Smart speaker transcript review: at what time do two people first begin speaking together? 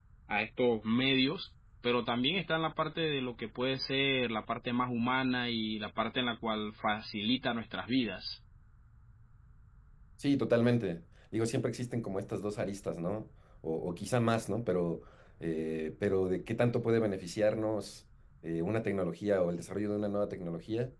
none

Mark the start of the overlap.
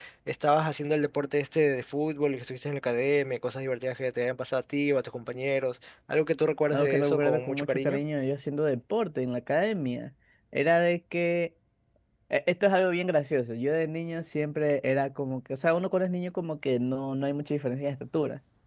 7 s

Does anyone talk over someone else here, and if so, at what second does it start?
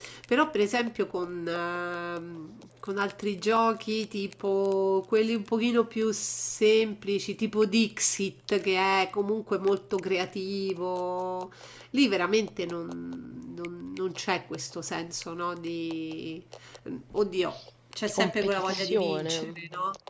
18 s

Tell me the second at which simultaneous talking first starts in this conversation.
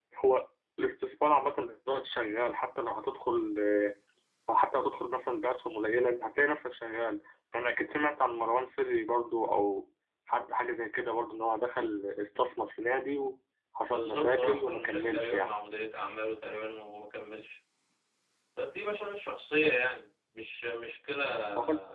14 s

